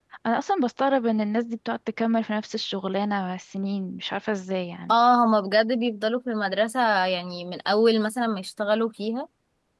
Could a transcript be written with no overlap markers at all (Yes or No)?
Yes